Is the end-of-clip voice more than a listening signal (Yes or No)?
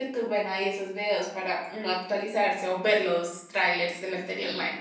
Yes